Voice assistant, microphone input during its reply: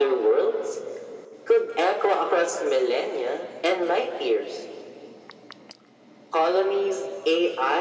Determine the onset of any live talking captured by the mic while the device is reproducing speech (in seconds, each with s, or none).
none